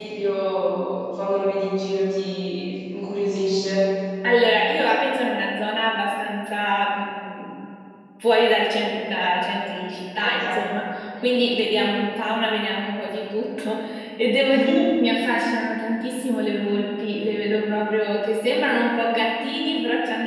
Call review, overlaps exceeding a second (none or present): none